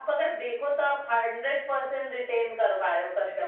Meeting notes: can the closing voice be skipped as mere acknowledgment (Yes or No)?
No